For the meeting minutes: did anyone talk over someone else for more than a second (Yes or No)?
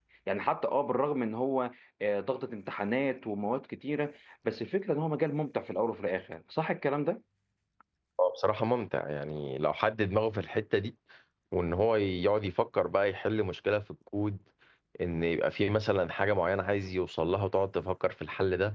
No